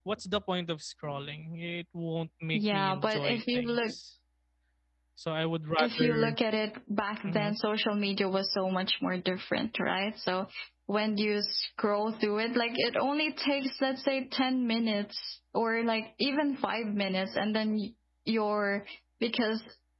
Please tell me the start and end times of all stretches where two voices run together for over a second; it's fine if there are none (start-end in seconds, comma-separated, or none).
2.5-3.9